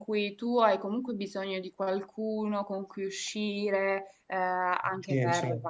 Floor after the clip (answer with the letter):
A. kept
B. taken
A